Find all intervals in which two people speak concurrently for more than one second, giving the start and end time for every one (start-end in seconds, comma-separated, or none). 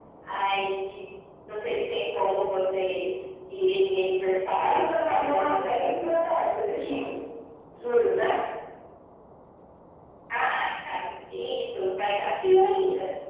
4.6-6.1